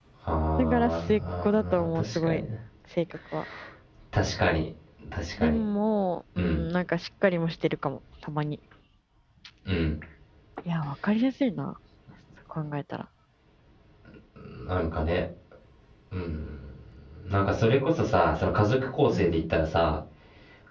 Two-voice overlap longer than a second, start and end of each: 0.6-2.4

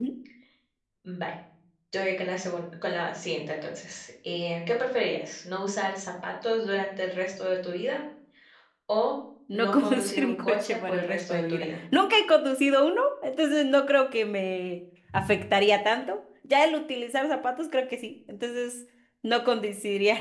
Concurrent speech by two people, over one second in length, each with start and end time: 9.5-11.7

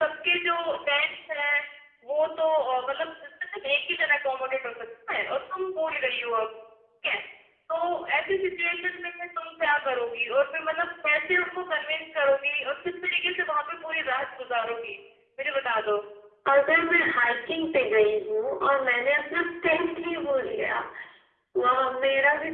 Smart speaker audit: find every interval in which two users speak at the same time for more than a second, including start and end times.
none

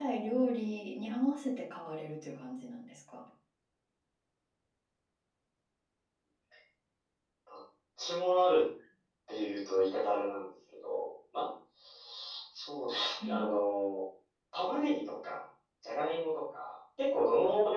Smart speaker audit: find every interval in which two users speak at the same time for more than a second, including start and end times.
none

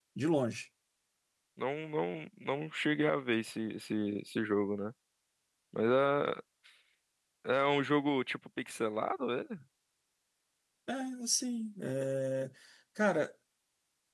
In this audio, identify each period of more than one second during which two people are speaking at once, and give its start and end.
none

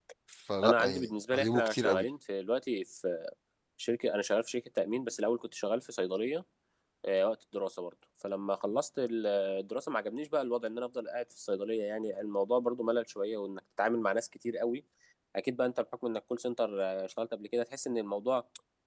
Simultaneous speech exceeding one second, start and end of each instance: 0.6-2.0

